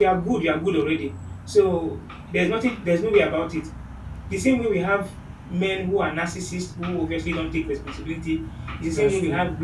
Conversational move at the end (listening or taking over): listening